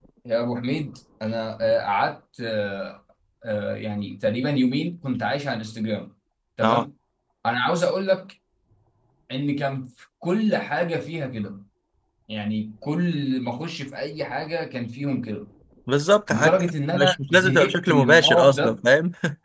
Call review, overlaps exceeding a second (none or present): present